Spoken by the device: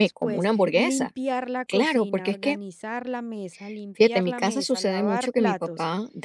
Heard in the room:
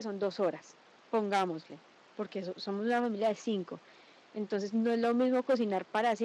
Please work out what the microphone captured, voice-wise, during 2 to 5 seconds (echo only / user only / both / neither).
user only